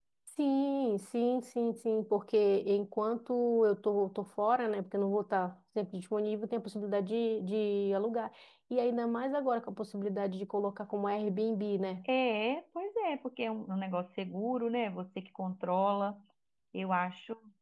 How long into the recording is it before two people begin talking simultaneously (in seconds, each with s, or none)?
none